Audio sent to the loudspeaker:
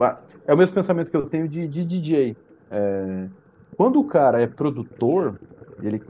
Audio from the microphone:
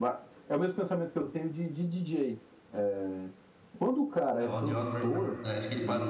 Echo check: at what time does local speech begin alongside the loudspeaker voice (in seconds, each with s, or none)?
4.4 s